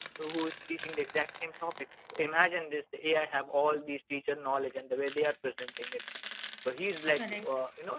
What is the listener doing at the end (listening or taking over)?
listening